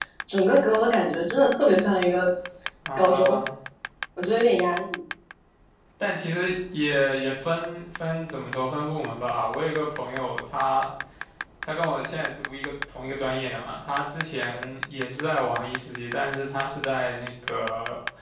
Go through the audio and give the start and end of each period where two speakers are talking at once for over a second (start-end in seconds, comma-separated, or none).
none